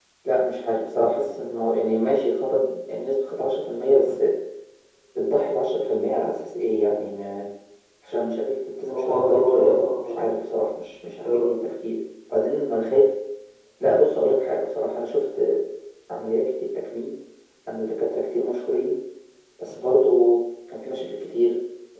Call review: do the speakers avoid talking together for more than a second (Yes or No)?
No